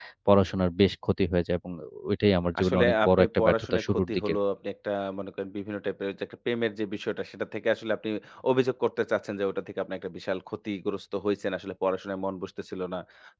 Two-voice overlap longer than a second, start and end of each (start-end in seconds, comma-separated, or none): 2.6-4.4